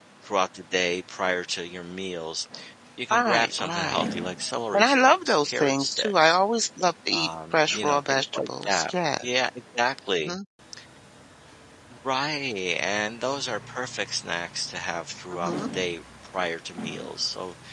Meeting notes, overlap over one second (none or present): present